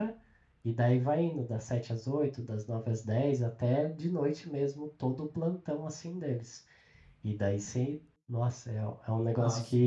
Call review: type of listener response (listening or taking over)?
listening